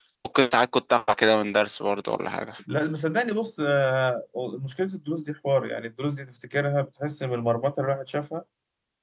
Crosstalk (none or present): none